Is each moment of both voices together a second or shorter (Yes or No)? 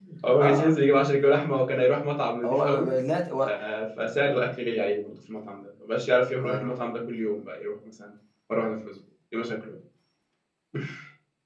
Yes